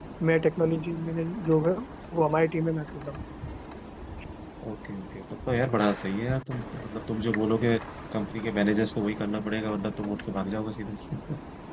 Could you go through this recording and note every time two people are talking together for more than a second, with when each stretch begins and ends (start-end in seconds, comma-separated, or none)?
none